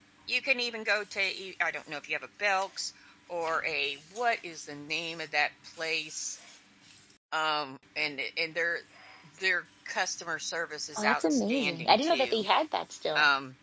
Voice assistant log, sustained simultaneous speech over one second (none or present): present